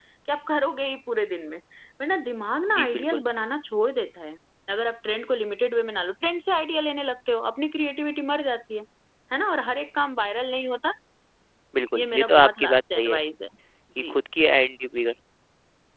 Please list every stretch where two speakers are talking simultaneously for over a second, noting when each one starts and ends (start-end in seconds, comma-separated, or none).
11.9-13.2